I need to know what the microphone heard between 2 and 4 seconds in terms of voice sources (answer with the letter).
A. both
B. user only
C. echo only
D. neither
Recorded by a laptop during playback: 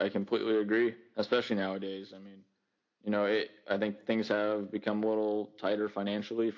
C